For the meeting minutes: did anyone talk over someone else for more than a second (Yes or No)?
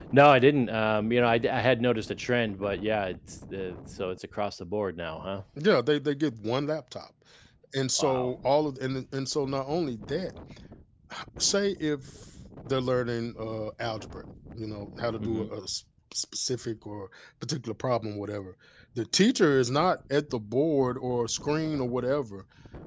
No